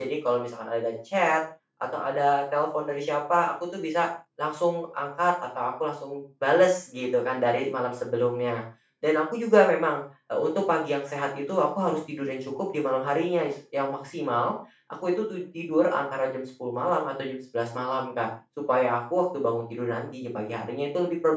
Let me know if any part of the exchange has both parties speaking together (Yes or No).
No